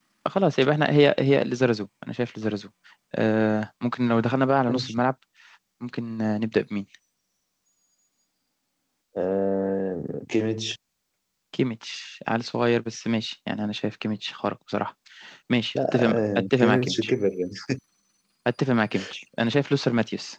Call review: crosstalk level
present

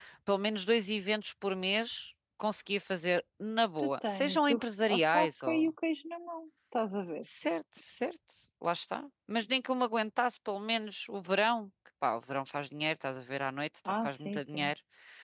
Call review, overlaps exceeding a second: present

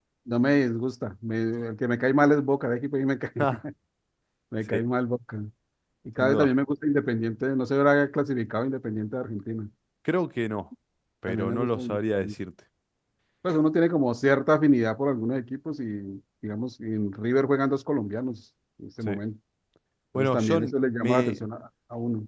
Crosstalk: present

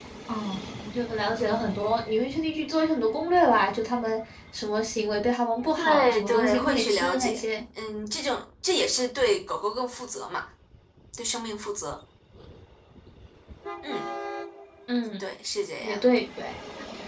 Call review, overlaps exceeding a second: present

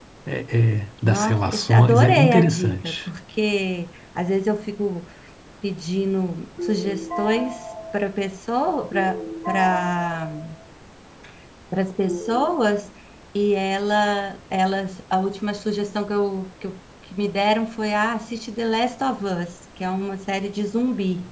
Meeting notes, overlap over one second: present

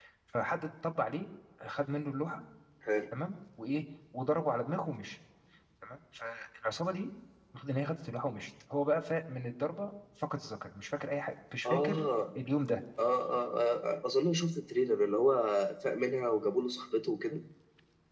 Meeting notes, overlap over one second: none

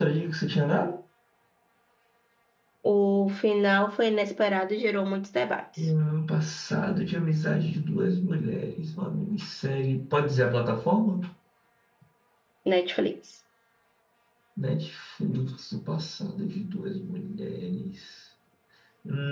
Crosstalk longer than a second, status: none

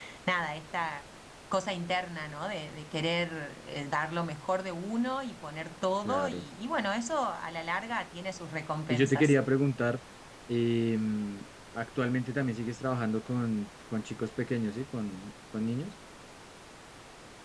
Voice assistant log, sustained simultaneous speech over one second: none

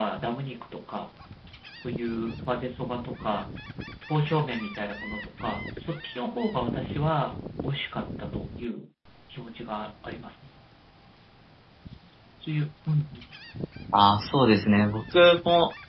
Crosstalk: none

